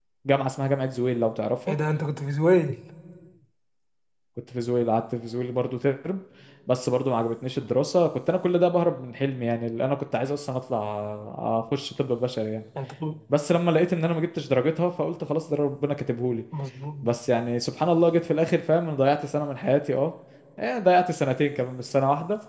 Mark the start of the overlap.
none

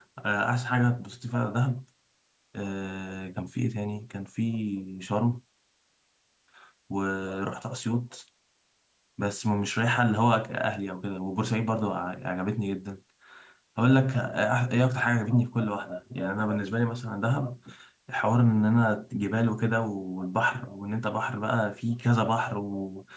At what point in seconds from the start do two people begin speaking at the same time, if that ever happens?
none

